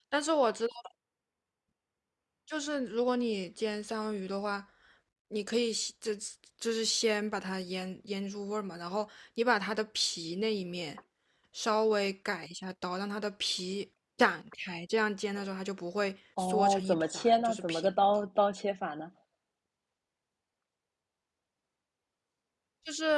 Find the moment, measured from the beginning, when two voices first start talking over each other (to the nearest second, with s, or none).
16 s